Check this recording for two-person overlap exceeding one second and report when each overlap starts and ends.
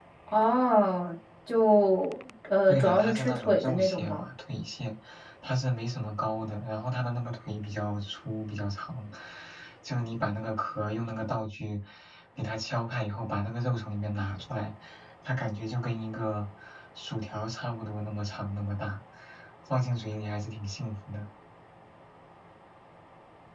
2.7-4.2

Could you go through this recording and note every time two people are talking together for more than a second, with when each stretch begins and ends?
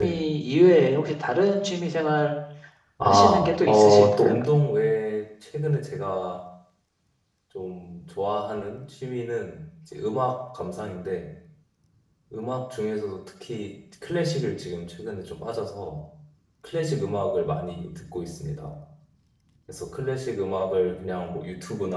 3.0-4.4

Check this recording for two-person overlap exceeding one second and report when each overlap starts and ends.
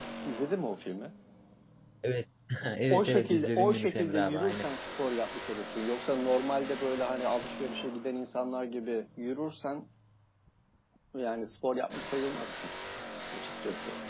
2.9-4.7

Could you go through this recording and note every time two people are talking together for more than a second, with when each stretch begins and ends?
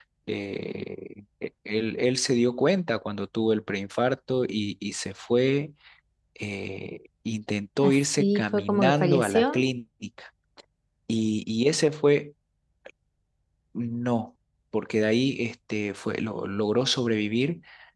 7.8-9.7

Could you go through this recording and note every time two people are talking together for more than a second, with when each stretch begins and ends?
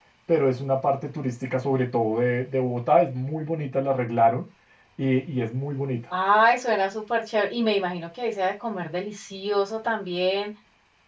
none

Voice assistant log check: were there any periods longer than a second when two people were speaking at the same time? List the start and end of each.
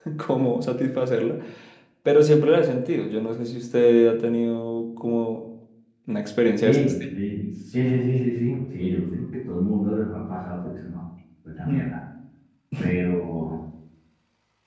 none

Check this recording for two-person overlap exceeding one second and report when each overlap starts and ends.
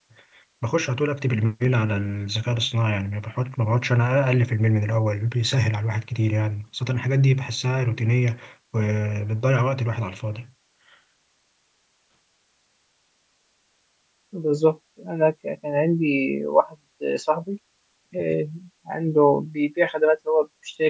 none

